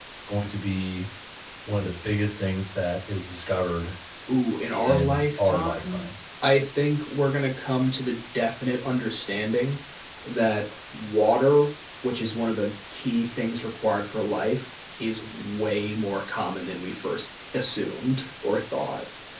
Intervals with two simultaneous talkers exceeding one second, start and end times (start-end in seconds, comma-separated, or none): 4.7-6.1